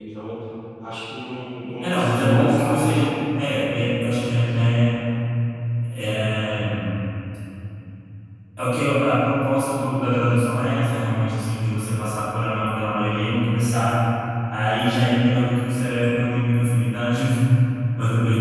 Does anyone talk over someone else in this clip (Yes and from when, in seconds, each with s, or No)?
Yes, from 1.8 s